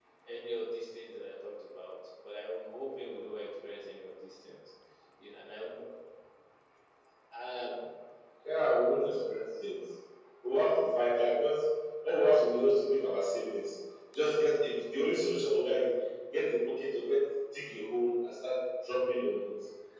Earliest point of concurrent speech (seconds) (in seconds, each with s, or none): none